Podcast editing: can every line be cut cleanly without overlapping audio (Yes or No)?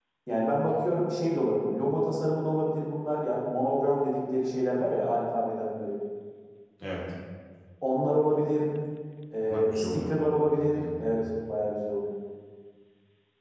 No